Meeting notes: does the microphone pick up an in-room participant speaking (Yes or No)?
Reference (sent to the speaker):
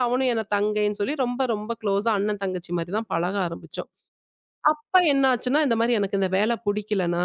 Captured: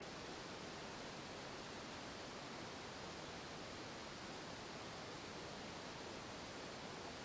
No